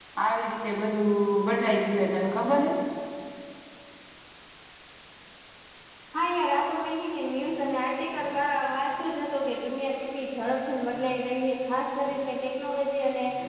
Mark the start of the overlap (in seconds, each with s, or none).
none